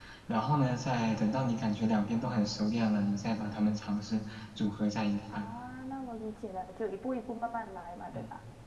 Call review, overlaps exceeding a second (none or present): none